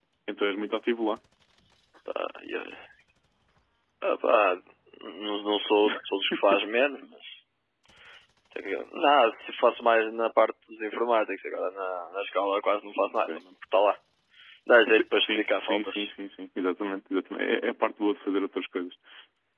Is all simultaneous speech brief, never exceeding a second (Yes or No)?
No